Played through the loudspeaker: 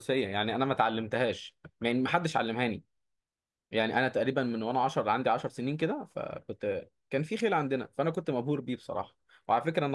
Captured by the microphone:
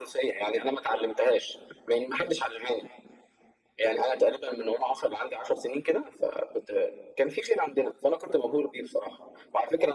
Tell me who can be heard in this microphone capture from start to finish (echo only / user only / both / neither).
echo only